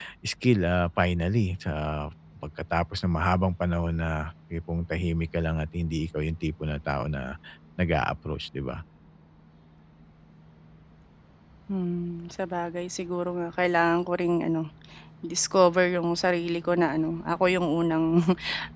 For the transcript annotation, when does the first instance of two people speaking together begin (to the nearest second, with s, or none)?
none